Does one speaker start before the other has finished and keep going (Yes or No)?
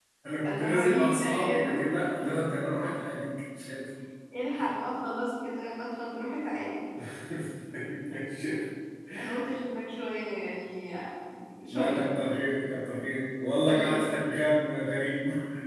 Yes